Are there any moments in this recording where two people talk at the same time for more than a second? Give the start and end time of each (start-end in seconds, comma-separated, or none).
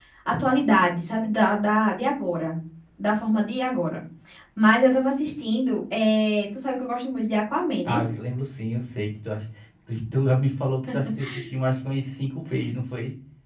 none